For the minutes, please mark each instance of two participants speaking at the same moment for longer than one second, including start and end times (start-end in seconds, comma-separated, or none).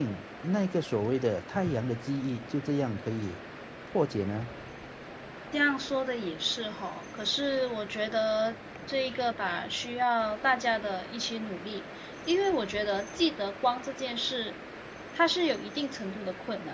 none